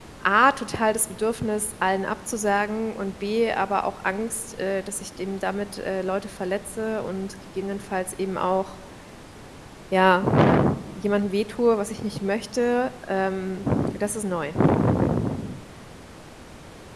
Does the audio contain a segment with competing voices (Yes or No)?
No